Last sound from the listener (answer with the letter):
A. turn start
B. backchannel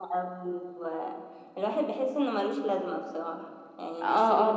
A